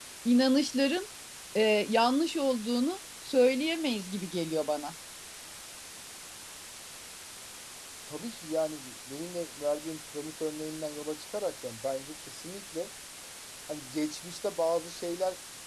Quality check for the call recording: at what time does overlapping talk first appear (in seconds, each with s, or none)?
none